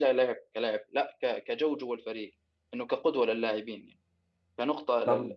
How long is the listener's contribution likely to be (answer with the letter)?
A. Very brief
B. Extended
A